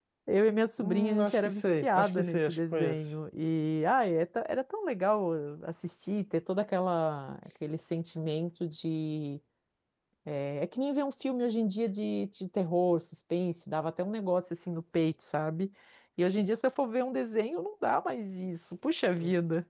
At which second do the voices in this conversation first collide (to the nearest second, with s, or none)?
1 s